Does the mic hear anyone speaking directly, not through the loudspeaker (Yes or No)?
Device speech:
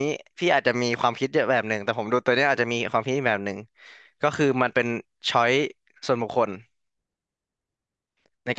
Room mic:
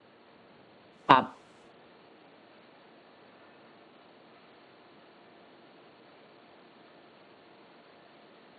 Yes